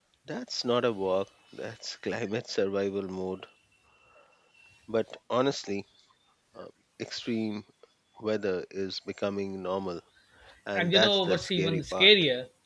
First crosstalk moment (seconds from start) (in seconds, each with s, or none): 10.8 s